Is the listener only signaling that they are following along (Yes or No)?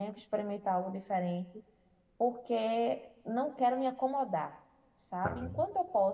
Yes